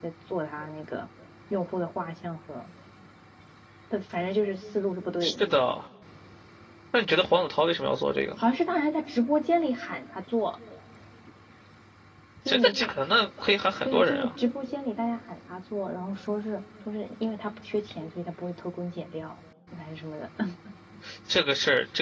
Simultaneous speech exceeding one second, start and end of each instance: none

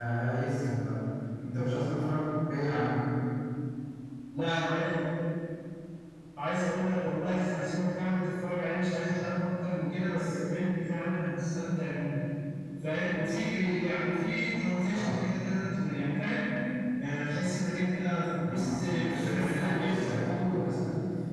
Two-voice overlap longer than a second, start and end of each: 18.4-20.1

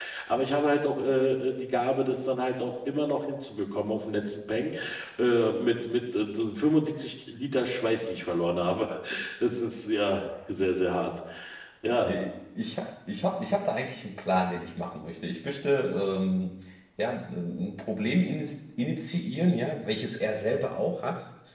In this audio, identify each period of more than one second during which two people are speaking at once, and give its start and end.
none

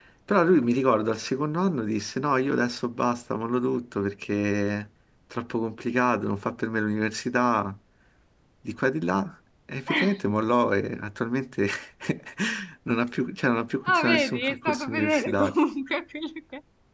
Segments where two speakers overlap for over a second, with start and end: 13.8-15.5

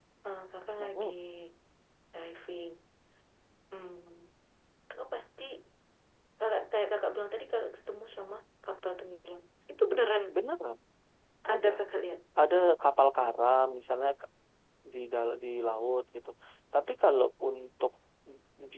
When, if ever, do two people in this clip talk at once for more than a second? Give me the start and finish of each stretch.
none

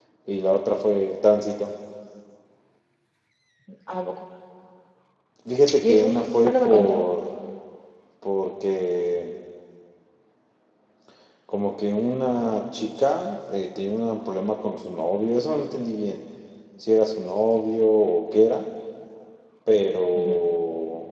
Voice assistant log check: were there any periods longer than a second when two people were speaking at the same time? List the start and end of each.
5.8-7.0

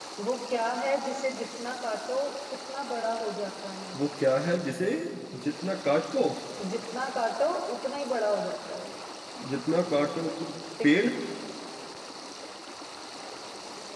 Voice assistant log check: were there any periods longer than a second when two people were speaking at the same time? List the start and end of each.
none

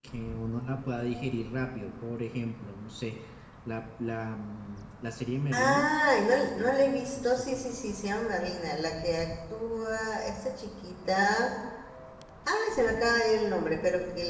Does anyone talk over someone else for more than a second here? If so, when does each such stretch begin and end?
6.4-7.7

